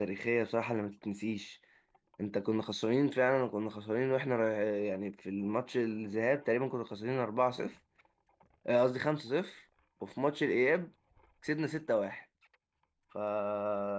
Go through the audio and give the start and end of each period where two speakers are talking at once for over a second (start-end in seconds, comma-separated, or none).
none